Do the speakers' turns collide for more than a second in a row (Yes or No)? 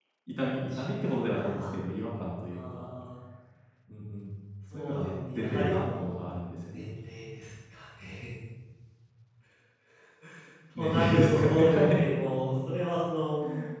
Yes